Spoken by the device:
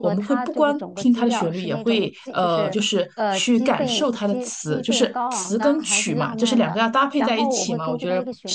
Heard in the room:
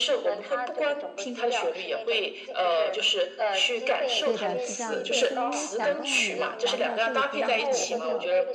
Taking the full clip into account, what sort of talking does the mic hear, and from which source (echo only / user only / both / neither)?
both